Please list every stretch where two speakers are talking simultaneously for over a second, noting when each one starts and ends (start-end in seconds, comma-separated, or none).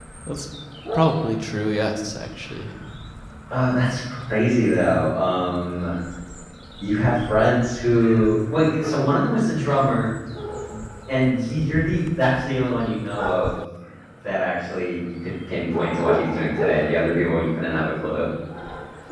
none